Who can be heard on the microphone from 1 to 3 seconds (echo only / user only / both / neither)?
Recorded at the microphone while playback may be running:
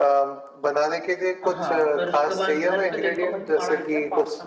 both